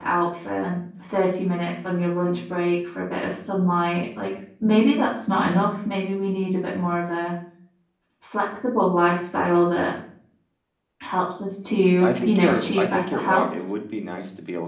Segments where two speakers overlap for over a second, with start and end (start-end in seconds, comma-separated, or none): 12.2-13.5